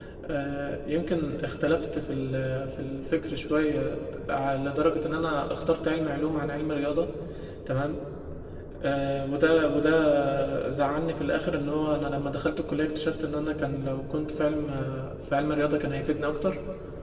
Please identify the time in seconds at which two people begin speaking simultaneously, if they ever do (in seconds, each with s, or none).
none